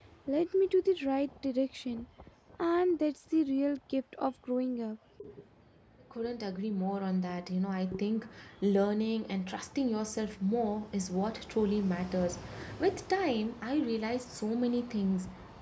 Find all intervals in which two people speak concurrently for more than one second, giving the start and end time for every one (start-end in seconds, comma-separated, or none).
none